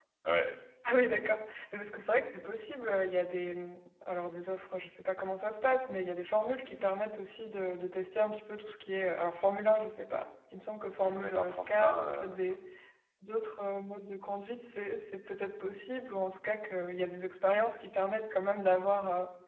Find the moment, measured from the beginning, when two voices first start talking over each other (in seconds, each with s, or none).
11.0 s